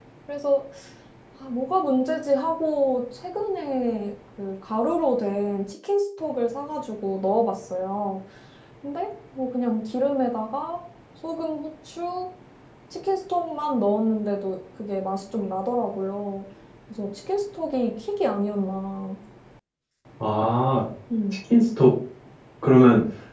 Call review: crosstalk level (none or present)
none